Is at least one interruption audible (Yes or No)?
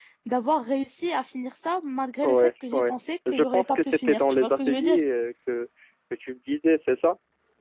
Yes